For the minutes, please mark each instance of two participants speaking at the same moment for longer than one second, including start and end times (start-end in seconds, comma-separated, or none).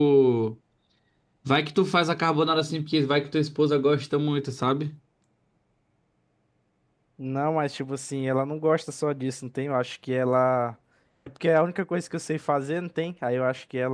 none